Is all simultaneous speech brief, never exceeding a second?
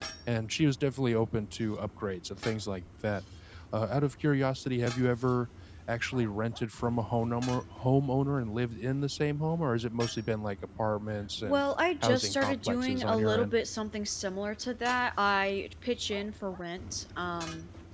No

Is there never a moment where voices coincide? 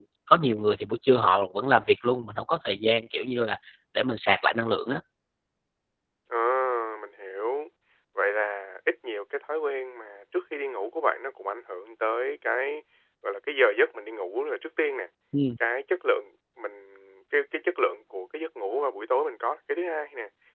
Yes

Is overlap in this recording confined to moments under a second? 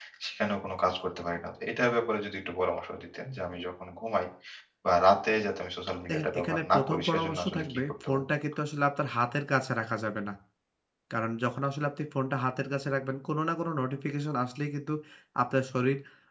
No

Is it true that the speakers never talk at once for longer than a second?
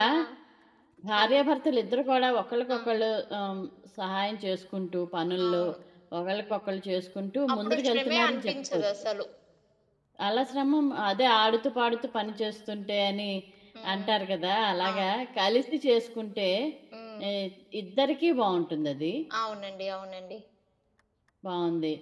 No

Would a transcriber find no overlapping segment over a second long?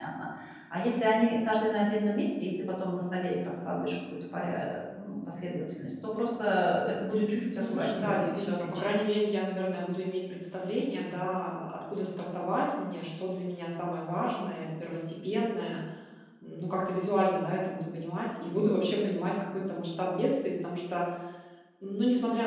No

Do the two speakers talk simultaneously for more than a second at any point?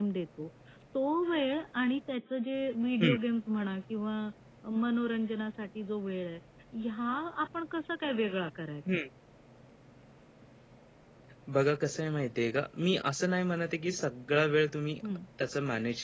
No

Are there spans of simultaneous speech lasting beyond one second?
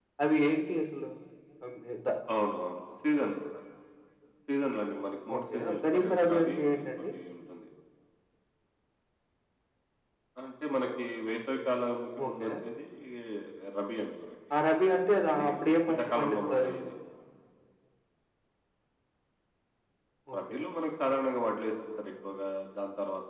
Yes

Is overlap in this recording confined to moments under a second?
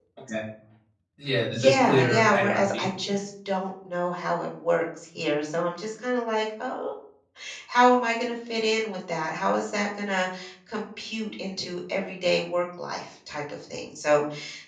No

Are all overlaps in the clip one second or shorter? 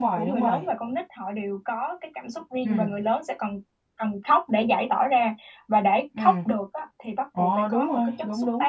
No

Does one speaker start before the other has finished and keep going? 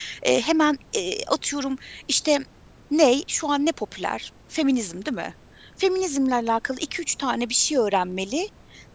No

